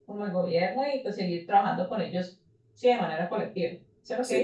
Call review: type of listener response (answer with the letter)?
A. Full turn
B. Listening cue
A